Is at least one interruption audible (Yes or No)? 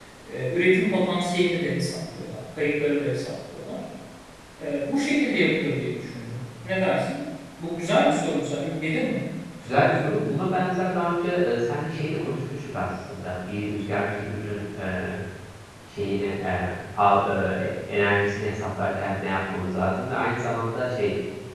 No